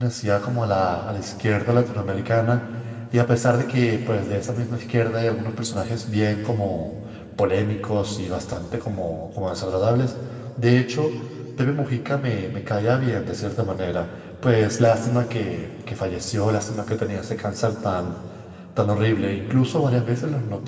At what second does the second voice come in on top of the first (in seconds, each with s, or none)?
none